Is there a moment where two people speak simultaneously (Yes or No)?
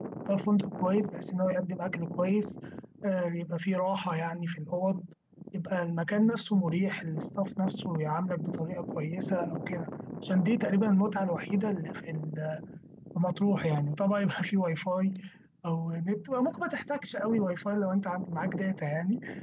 No